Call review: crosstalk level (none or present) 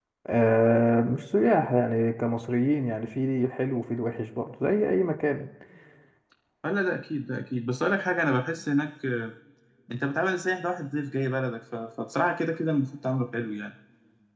none